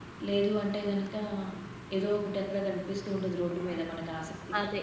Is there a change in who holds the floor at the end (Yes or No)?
Yes